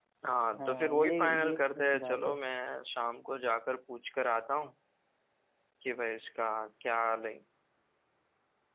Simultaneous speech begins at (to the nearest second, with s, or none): 1 s